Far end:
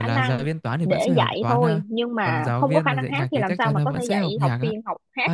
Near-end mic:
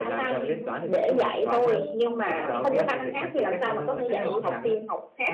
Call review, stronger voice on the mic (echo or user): echo